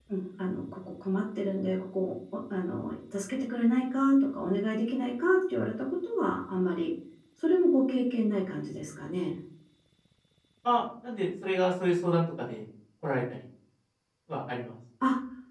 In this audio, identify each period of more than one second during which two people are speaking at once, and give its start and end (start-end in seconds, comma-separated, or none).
none